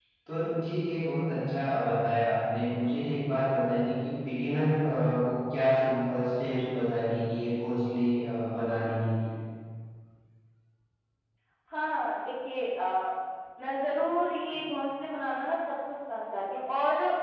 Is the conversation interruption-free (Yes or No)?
Yes